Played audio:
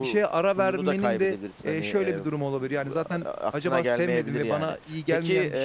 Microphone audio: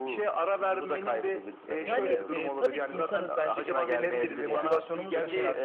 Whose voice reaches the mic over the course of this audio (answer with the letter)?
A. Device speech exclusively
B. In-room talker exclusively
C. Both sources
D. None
C